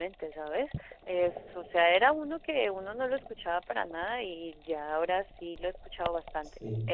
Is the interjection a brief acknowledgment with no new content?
No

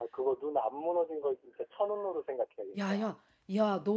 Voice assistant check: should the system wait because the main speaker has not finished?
No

